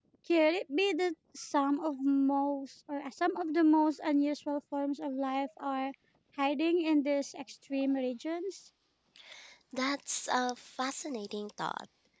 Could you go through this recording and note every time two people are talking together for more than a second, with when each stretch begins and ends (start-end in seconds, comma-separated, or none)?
none